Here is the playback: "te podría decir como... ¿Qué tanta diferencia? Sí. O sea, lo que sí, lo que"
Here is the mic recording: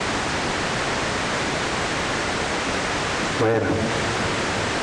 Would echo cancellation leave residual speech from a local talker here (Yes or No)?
Yes